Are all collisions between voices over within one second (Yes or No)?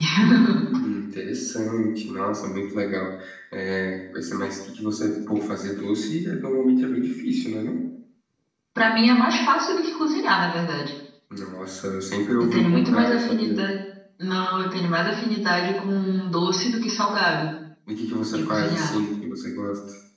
No